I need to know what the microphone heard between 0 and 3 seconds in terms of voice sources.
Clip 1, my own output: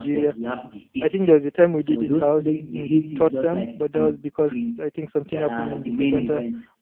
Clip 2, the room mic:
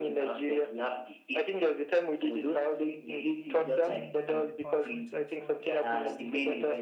echo only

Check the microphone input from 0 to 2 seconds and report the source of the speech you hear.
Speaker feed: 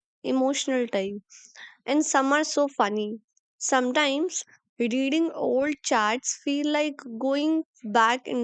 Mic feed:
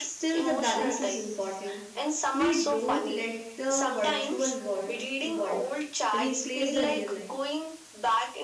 both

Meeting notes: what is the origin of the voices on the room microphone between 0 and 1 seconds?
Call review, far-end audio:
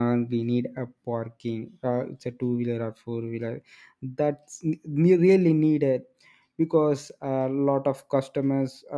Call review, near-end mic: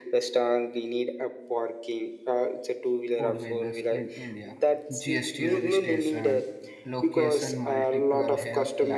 echo only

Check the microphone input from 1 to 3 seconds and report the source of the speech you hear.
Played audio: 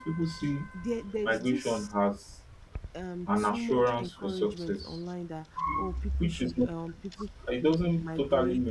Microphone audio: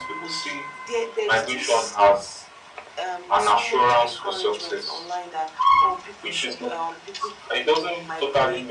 echo only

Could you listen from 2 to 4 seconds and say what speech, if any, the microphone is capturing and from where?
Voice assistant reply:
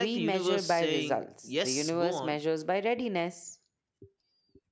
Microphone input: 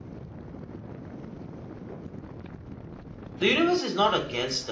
user only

